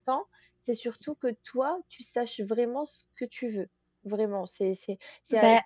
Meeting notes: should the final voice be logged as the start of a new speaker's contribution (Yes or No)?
No